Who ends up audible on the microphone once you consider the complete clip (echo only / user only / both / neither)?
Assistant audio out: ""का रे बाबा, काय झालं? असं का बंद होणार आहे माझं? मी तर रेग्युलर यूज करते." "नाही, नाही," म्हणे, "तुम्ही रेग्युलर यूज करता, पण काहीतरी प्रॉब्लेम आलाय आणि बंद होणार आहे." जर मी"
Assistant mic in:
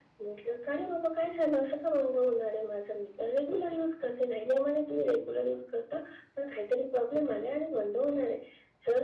echo only